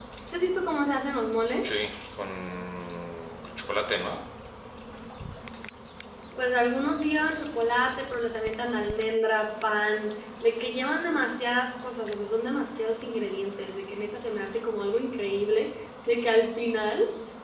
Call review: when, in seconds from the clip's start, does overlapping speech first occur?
none

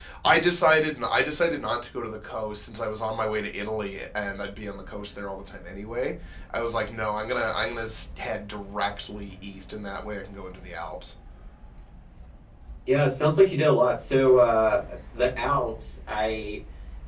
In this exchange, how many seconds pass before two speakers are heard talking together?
none

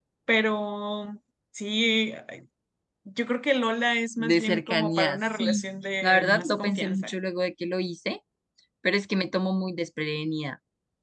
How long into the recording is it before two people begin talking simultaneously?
4.2 s

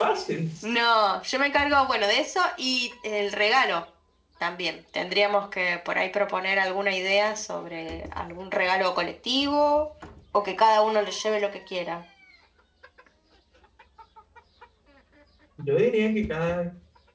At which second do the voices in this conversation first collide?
none

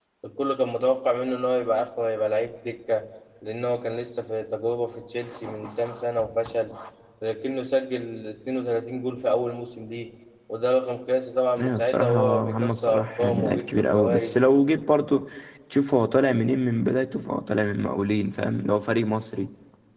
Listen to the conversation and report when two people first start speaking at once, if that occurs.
11.6 s

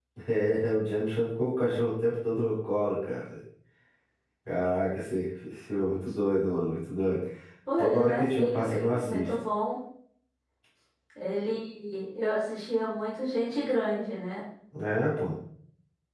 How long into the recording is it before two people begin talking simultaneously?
7.8 s

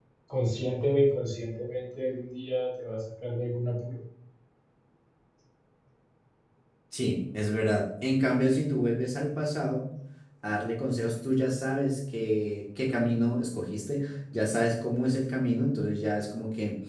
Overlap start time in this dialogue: none

